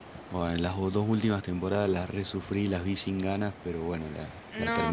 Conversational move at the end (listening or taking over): taking over